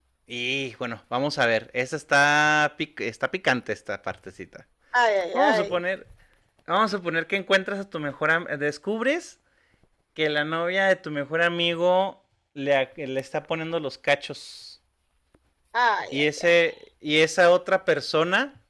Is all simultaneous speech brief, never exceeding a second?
Yes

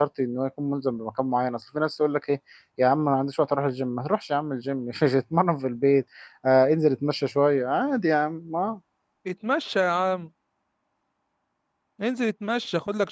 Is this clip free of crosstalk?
Yes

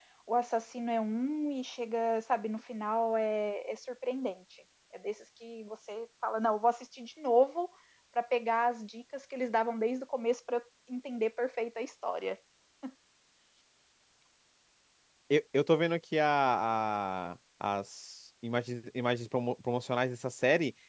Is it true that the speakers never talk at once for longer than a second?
Yes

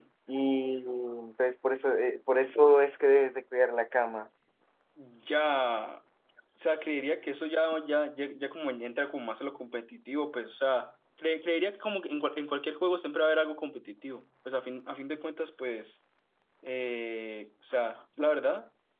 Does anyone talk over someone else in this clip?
No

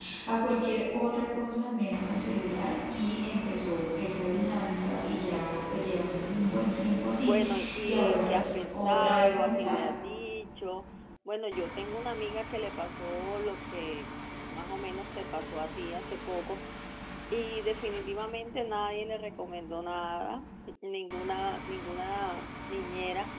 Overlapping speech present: Yes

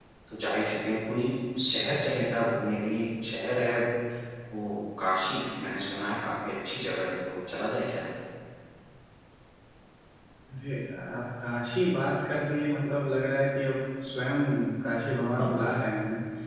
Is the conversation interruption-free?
Yes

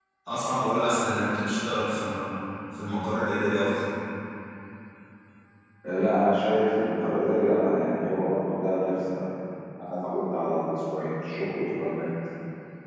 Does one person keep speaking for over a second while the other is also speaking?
No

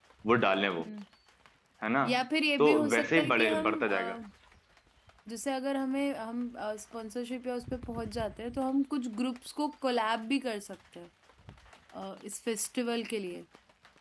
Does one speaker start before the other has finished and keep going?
Yes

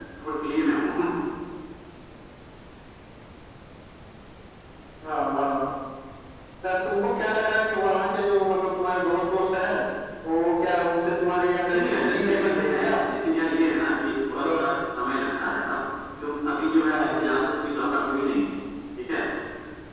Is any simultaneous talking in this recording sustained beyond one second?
Yes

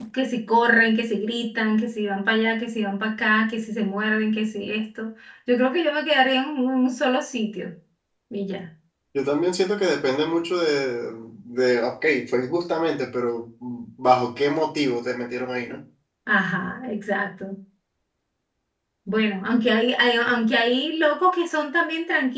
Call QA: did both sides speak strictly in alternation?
Yes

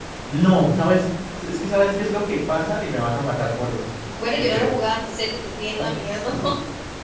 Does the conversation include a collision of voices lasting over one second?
No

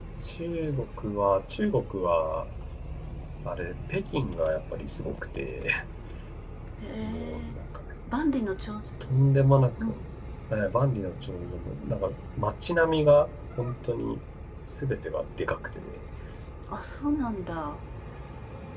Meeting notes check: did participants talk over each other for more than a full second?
No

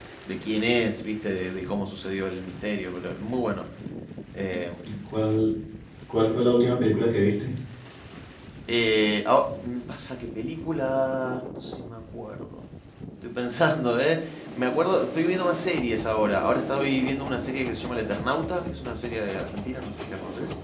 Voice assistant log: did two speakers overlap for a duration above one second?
No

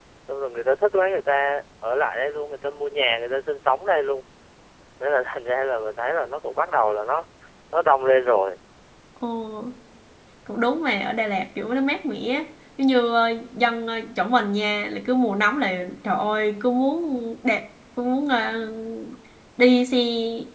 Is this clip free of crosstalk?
Yes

